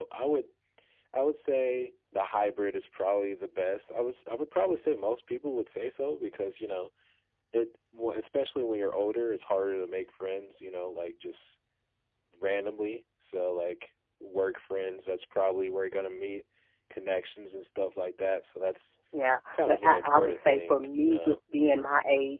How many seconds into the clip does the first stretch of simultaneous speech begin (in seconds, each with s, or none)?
19.5 s